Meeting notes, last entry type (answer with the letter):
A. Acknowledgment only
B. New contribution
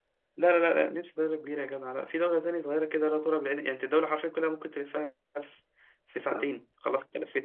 A